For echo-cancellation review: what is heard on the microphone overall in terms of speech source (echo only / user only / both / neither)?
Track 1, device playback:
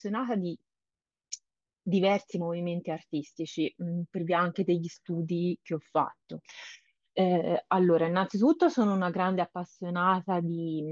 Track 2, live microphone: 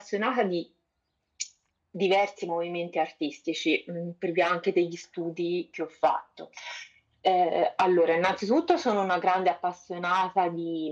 echo only